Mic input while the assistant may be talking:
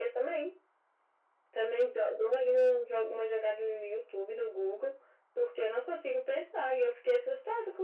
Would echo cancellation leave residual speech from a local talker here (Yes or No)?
No